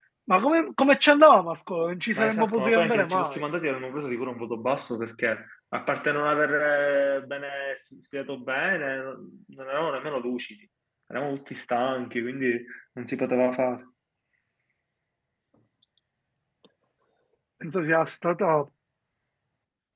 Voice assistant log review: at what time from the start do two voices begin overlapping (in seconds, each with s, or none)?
2.1 s